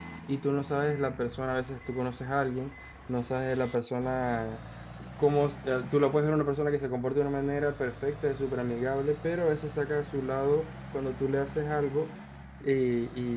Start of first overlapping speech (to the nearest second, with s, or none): none